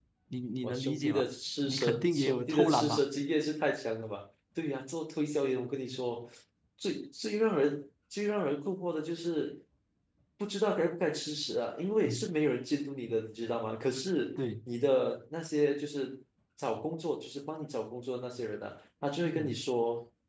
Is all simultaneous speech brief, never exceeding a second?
No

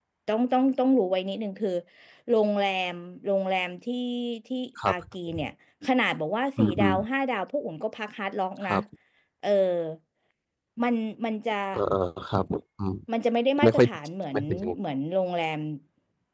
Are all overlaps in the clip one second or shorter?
Yes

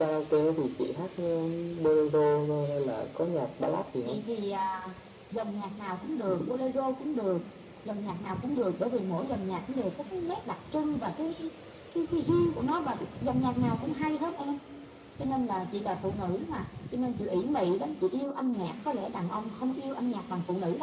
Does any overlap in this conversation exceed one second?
No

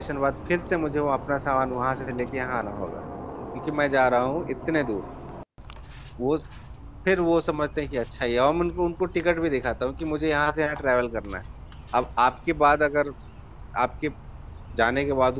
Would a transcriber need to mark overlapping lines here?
No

